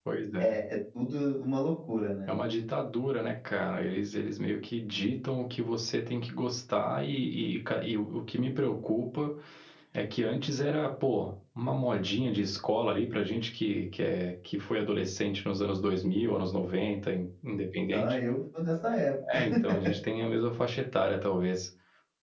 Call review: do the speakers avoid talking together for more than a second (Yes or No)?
Yes